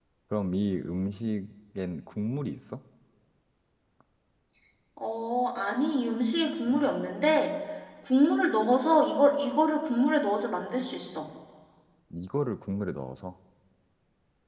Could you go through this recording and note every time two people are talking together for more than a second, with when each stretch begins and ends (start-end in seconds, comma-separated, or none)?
none